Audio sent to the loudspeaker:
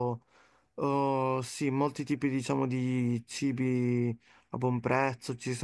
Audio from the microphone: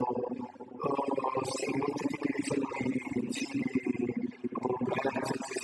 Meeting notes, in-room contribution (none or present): none